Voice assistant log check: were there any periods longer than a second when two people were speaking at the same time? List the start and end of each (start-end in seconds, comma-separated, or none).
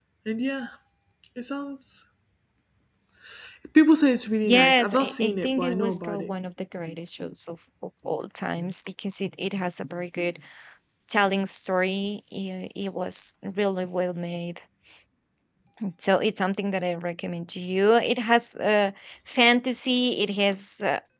4.4-6.3